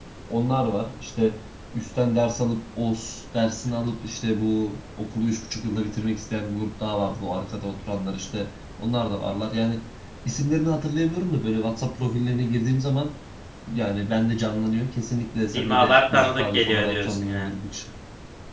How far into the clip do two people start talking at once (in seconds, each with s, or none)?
15.5 s